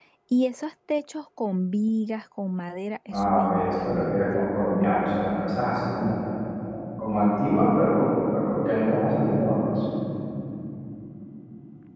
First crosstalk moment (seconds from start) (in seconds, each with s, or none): 3.1 s